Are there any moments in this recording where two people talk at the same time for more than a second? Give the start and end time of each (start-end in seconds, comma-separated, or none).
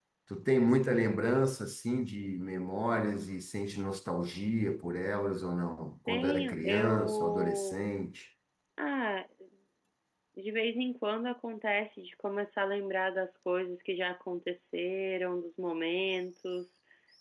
6.1-7.8